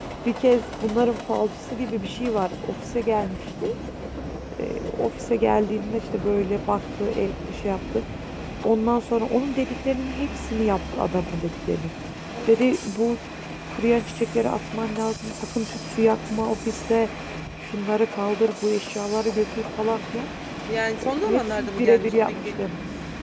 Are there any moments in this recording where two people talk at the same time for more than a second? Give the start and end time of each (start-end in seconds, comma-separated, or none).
21.0-22.5